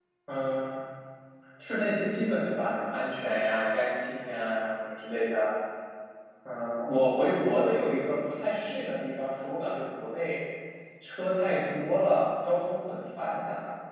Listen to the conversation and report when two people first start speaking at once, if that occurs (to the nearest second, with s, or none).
none